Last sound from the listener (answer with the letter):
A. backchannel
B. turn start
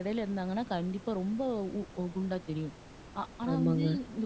A